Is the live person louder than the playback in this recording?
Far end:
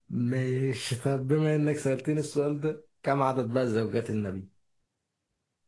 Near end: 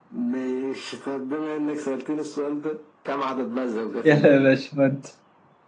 Yes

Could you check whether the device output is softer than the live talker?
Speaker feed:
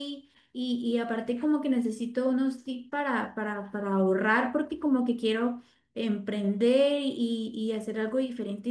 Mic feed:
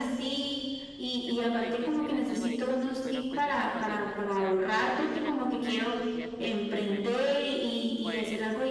No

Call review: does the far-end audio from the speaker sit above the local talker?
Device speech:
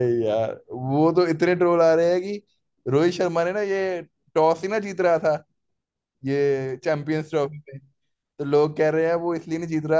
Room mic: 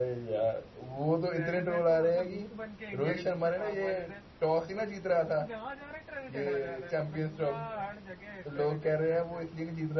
Yes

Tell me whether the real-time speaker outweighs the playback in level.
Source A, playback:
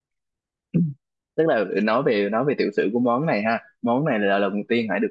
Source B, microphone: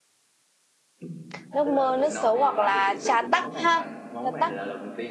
Yes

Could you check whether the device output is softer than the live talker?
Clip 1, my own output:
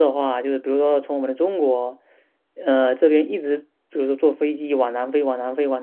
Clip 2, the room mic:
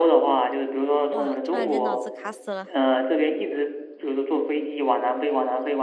No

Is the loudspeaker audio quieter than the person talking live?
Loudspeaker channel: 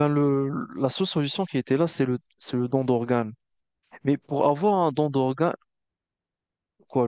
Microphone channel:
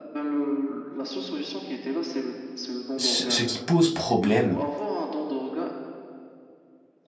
Yes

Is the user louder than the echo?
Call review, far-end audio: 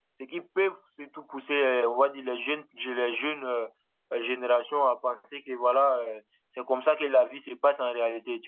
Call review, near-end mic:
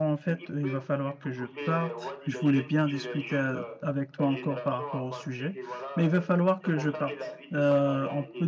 Yes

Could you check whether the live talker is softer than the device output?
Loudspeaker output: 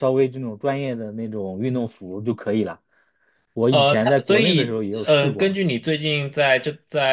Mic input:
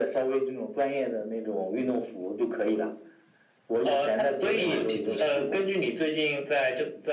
Yes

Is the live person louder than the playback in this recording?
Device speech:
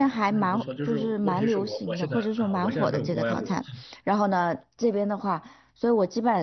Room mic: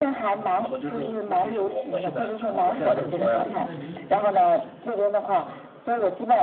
No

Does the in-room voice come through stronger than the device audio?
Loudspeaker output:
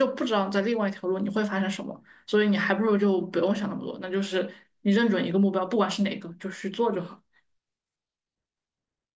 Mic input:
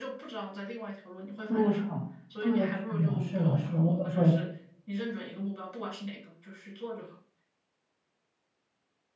Yes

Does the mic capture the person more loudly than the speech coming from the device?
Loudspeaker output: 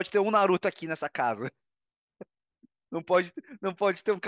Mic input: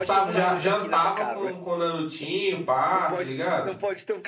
Yes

